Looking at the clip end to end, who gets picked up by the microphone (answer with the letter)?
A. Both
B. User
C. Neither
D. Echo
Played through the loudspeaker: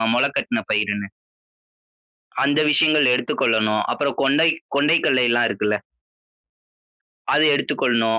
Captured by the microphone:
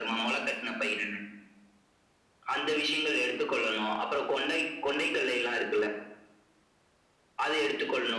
D